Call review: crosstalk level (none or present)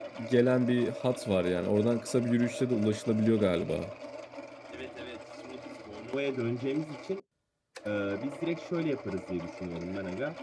none